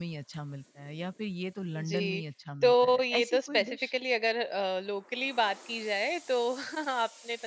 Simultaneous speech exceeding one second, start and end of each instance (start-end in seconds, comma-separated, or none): 2.6-3.9